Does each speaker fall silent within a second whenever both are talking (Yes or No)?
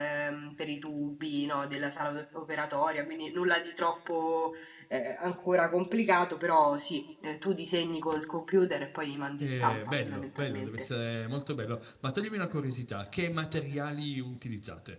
No